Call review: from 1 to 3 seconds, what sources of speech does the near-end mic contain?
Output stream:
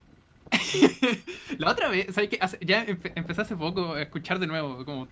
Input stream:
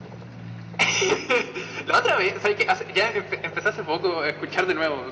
echo only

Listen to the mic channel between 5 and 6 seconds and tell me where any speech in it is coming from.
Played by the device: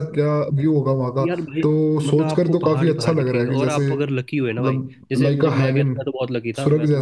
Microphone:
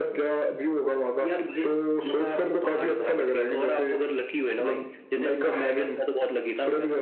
echo only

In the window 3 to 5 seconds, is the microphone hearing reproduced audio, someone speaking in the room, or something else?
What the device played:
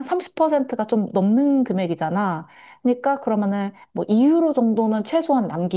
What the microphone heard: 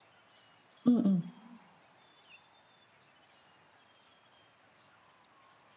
neither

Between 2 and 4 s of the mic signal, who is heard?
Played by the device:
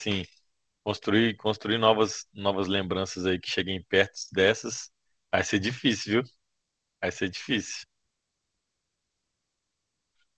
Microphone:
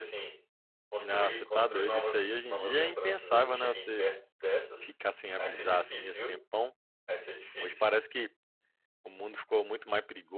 both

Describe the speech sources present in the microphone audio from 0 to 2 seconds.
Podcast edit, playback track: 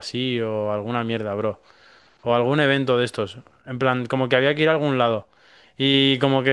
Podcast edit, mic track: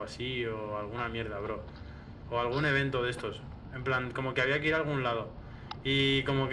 echo only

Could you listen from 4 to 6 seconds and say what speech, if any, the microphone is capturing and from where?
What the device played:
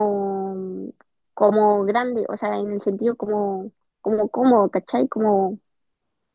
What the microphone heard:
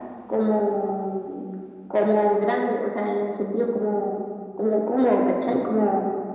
echo only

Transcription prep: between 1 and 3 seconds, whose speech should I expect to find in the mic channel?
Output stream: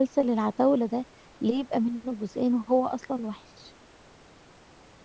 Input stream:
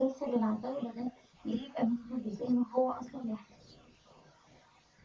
echo only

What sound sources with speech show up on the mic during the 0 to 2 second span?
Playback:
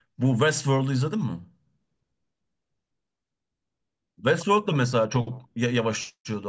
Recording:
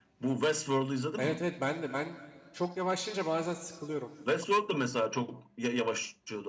both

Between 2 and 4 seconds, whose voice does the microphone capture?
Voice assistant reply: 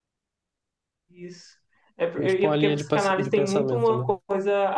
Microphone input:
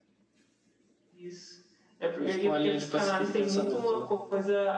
echo only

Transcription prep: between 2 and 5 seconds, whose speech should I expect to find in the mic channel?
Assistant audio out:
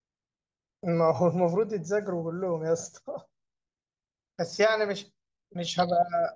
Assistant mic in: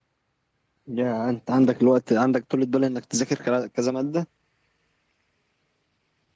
user only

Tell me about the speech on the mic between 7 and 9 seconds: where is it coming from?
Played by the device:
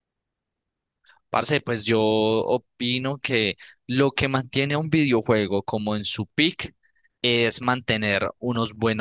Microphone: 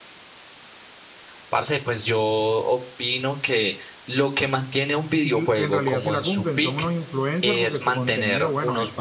both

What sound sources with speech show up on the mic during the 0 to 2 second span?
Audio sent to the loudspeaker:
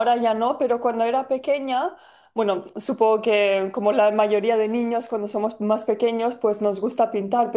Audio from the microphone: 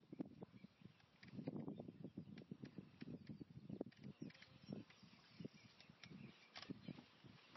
neither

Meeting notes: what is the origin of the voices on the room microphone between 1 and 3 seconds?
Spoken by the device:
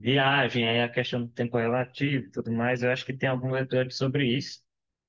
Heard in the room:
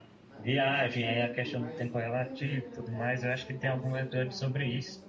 both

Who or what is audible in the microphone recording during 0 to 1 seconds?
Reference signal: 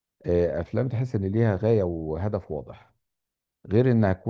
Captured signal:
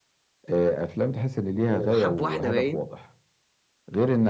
echo only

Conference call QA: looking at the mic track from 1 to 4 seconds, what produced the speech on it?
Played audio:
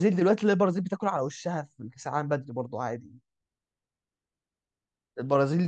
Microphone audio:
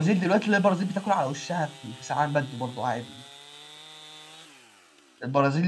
echo only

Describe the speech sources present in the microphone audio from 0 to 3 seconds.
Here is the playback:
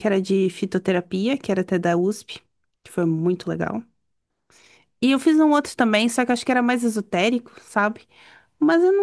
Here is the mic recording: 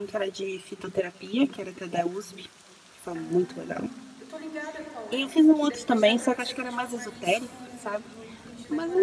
echo only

